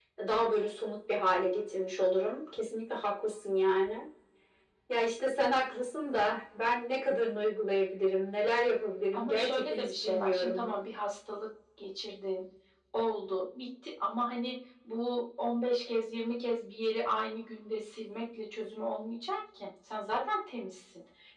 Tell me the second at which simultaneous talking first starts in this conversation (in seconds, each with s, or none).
9.1 s